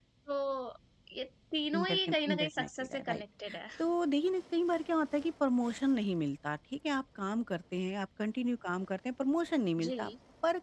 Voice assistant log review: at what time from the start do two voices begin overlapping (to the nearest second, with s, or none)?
2 s